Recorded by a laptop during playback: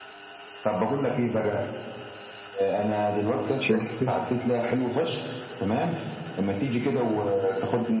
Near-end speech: present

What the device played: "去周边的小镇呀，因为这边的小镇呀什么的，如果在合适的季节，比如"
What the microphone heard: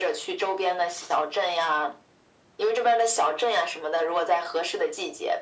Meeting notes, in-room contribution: none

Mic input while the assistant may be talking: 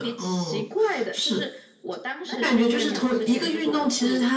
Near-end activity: present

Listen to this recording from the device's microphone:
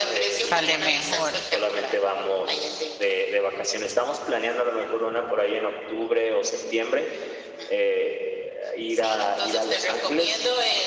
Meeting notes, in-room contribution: present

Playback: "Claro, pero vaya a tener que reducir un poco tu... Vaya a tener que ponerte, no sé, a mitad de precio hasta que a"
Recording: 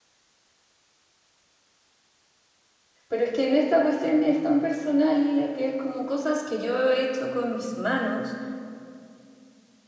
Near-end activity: present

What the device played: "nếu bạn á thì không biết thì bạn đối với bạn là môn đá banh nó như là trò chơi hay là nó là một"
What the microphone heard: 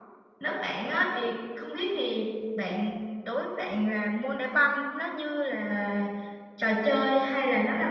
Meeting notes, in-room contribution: none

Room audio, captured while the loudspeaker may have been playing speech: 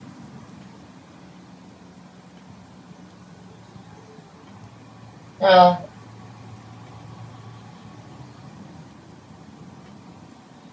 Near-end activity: present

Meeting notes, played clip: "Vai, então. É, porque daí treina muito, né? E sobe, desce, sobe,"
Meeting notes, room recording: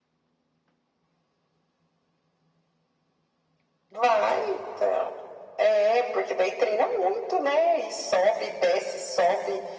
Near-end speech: none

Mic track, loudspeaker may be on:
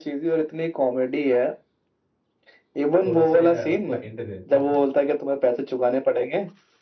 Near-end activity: present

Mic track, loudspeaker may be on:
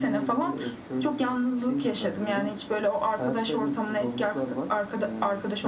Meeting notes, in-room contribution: none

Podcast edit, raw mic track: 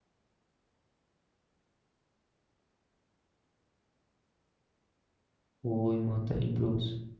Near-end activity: present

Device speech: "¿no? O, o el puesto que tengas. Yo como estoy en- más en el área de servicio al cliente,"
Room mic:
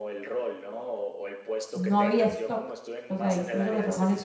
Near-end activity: present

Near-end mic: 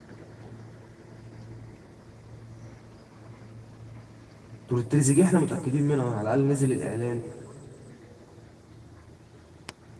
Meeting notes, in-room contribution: present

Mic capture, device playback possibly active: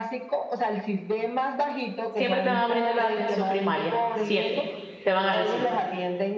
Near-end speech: present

